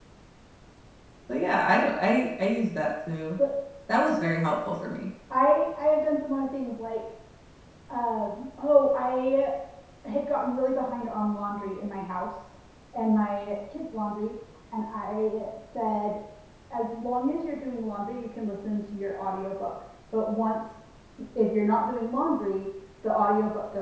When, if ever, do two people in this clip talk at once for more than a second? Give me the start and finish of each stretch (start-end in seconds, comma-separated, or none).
none